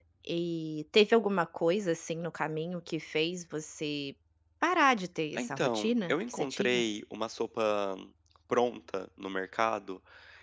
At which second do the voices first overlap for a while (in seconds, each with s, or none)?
5.4 s